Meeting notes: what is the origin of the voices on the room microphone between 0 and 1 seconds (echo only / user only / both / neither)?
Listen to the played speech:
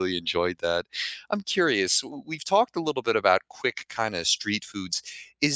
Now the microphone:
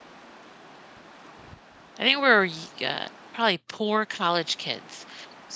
neither